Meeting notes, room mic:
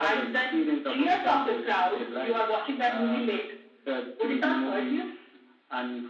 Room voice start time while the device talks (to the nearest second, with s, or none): none